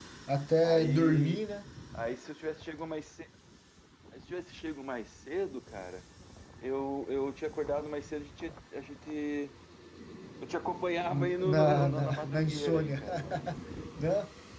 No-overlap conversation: No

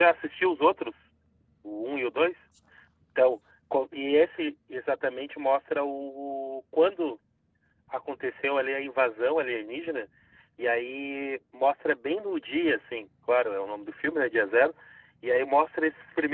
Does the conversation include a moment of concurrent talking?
No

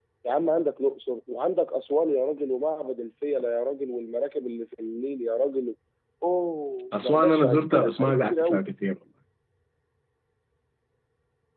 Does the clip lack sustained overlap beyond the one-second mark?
No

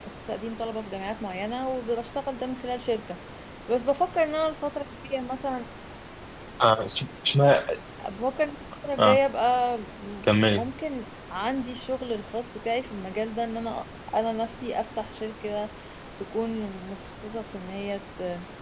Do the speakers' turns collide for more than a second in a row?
No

